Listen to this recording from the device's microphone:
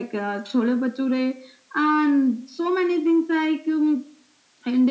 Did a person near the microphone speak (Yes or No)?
No